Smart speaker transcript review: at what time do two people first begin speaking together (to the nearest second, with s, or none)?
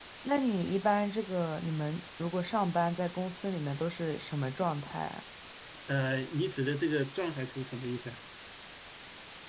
none